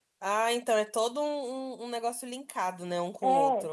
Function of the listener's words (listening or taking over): taking over